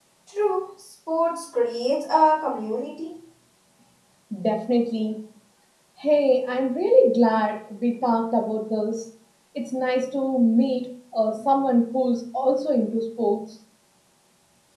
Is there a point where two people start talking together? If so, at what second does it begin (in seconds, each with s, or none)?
none